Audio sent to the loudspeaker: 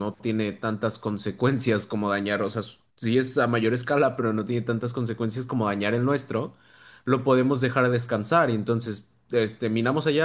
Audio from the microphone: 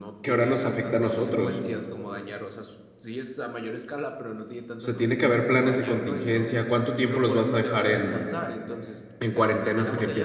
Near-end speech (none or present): present